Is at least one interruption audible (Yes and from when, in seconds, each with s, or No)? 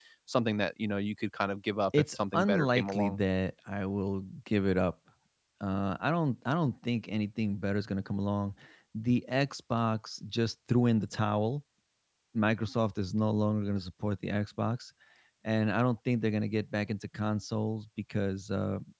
Yes, from 1.9 s